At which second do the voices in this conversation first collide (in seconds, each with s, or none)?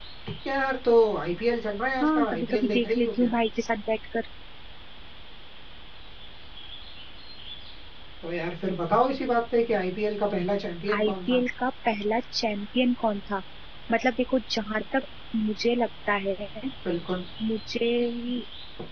2.0 s